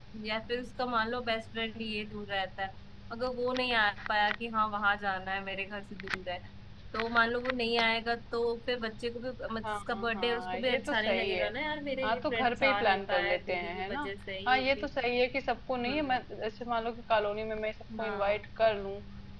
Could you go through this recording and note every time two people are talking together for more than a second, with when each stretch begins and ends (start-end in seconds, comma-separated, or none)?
9.6-11.5, 12.0-14.1